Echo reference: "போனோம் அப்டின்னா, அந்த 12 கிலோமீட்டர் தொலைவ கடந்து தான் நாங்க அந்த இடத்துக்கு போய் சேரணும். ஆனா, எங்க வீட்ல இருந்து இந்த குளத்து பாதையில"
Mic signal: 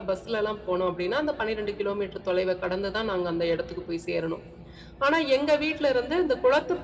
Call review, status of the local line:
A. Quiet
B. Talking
A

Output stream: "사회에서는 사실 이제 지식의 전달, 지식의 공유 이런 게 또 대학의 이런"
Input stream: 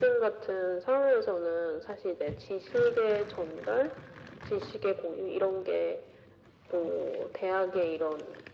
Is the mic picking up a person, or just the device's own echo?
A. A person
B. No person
B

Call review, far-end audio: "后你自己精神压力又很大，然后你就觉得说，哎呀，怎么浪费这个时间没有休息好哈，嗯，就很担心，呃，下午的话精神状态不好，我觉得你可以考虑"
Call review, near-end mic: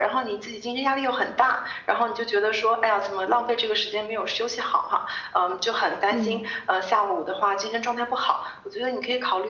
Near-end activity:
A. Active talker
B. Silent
A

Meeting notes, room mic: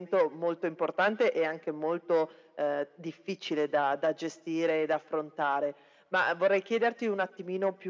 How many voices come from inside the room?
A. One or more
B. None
B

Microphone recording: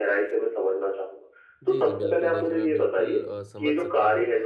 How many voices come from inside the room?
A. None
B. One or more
B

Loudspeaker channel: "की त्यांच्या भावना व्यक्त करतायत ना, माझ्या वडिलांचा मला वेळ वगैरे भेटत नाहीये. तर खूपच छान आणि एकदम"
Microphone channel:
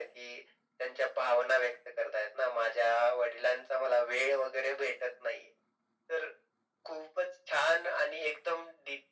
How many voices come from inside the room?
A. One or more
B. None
B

